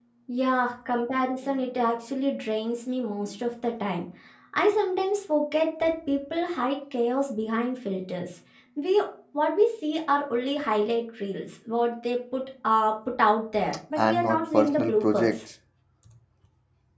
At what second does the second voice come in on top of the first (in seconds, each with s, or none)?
14.0 s